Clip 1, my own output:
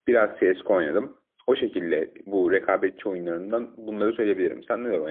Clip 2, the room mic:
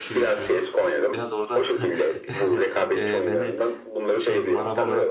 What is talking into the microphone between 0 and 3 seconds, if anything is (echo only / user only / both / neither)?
both